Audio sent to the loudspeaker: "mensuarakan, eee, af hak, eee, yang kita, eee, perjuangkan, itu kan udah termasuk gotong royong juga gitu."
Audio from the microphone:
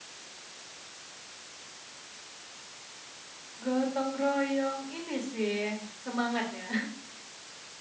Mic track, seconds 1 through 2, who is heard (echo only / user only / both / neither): neither